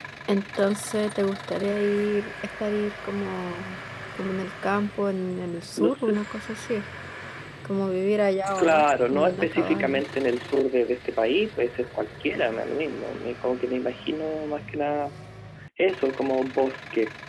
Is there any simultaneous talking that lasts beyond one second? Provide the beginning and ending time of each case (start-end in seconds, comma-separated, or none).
8.6-10.0